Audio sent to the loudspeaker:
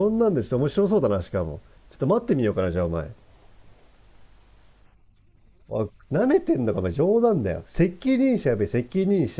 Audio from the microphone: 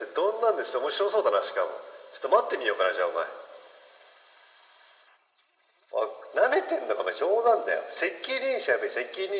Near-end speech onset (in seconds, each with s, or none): none